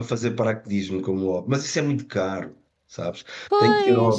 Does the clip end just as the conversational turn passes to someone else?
No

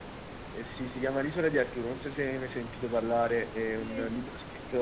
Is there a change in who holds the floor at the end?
No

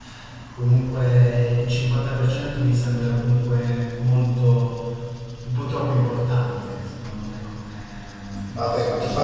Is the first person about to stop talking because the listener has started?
Yes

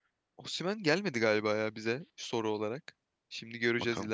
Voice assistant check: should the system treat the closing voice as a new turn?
No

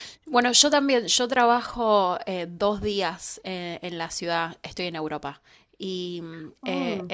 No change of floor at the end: Yes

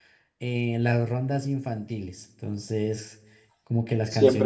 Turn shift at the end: Yes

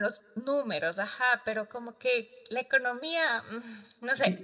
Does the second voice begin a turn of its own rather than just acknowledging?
Yes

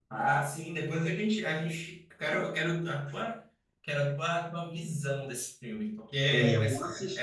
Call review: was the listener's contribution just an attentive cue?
No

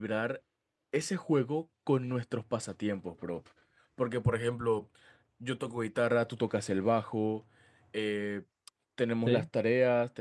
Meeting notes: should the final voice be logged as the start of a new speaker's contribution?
No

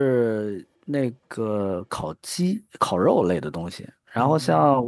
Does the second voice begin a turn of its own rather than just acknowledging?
No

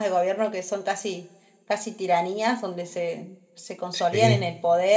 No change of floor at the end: Yes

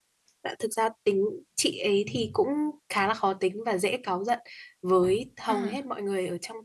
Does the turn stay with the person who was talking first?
Yes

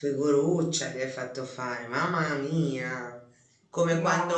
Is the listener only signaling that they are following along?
Yes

